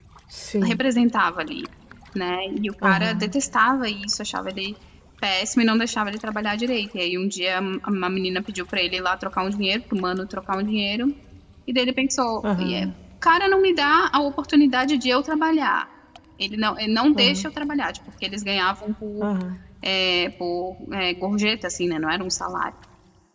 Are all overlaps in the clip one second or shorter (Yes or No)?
Yes